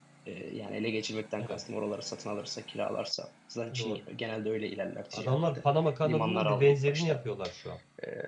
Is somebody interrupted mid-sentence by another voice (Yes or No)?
Yes